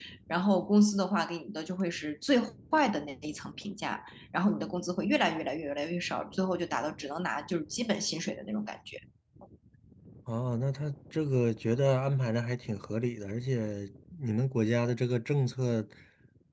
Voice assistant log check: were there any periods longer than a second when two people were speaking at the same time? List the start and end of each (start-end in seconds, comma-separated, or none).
none